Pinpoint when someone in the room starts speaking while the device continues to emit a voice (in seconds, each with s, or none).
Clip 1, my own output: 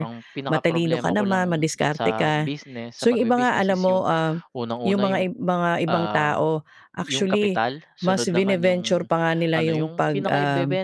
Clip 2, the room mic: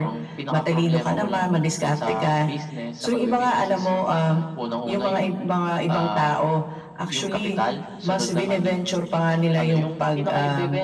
none